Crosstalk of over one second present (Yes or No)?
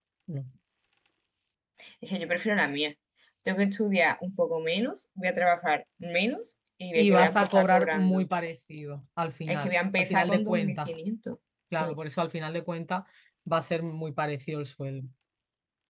Yes